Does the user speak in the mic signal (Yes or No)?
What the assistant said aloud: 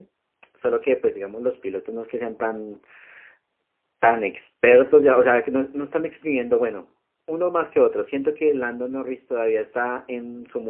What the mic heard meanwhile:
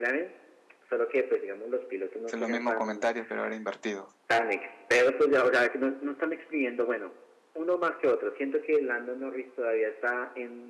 Yes